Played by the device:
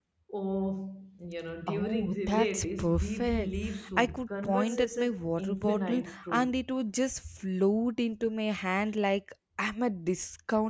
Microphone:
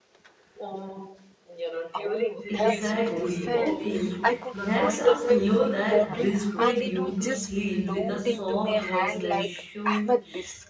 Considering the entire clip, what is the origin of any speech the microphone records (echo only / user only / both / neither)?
both